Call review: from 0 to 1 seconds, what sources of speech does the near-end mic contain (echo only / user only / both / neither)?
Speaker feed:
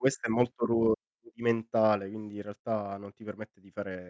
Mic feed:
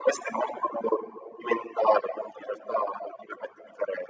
echo only